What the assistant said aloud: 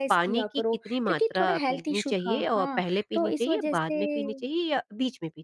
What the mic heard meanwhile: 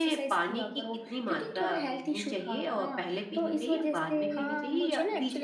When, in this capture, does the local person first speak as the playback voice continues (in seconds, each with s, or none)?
4.3 s